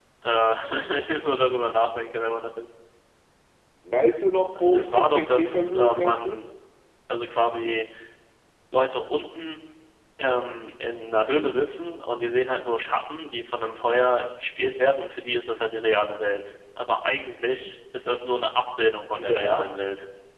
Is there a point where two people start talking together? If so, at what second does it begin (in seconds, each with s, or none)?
4.7 s